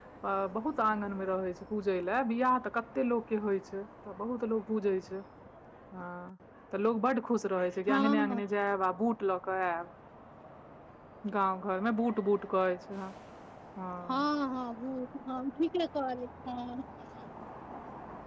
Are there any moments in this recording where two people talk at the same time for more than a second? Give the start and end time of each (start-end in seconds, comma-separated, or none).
none